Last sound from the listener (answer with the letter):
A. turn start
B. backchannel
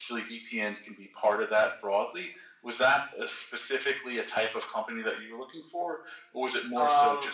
A